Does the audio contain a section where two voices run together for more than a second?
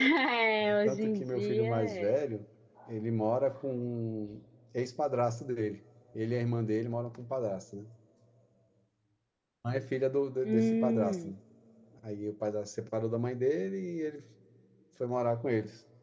Yes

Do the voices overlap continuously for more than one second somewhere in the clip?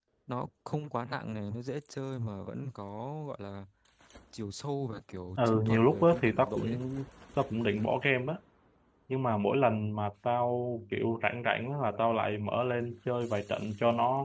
Yes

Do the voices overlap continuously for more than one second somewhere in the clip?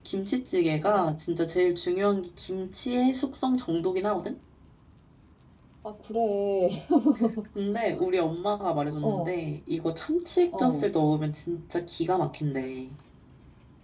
No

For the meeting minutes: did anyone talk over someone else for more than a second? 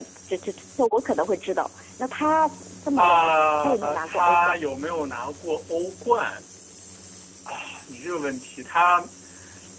Yes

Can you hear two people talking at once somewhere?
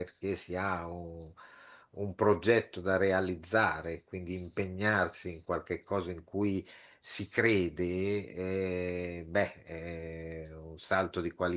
No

